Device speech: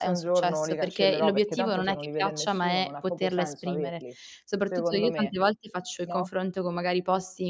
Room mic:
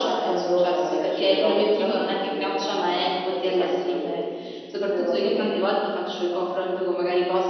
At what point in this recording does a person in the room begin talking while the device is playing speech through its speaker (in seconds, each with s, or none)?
none